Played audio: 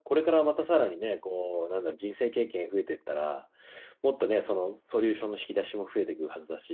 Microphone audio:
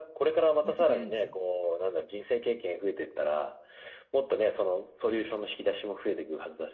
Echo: present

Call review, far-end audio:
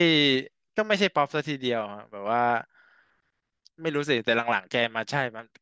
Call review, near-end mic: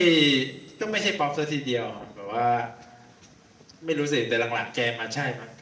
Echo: present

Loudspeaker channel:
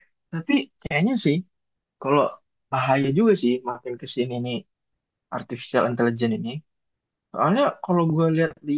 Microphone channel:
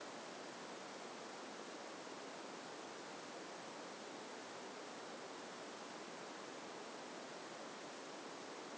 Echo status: none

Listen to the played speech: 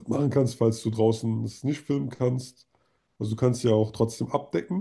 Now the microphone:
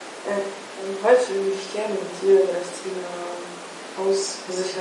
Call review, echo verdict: none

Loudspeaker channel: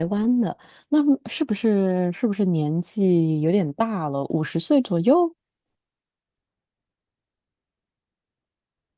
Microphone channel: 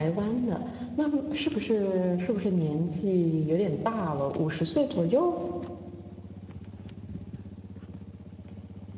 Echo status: present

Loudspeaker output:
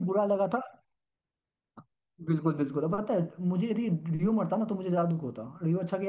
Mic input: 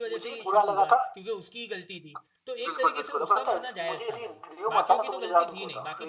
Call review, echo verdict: present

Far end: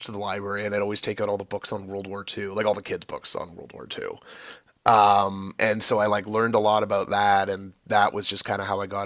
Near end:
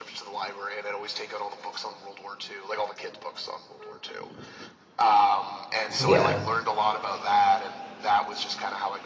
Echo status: present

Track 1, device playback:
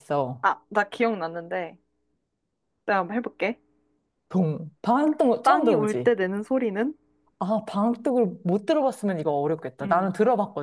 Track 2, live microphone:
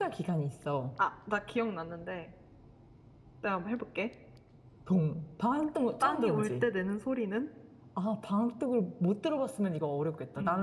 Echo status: present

